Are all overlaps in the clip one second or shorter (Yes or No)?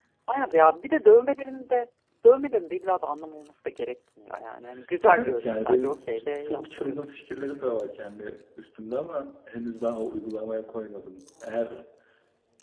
No